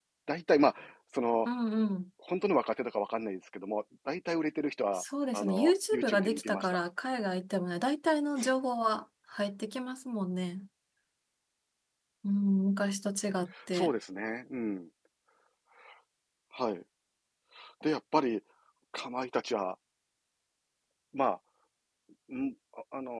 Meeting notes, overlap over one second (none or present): present